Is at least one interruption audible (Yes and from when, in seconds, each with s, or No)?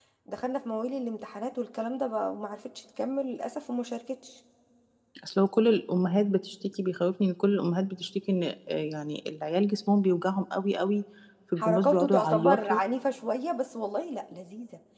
Yes, from 11.6 s